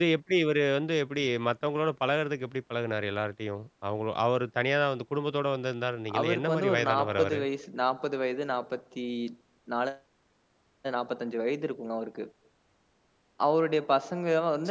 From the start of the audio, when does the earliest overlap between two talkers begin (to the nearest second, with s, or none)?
6 s